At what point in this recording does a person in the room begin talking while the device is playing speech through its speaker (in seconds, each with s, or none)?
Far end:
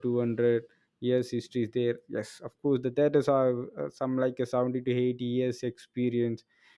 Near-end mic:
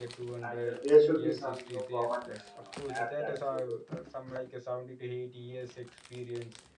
0.4 s